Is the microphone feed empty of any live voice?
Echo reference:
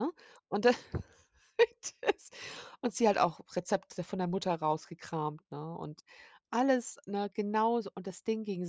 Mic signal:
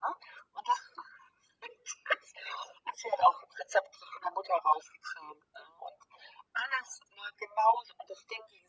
Yes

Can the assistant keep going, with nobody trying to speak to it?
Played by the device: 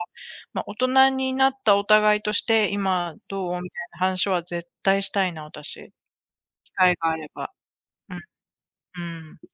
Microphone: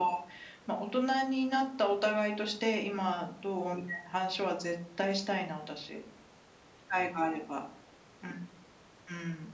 Yes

